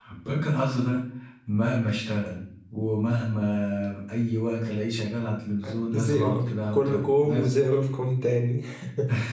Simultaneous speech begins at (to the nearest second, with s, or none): 6 s